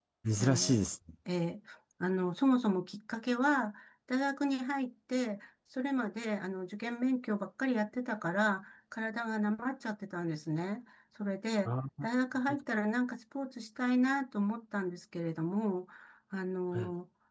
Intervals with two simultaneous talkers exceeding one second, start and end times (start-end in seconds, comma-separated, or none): none